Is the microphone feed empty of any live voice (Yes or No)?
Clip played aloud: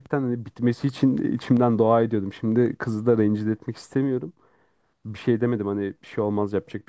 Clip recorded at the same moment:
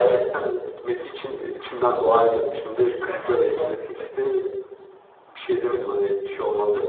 No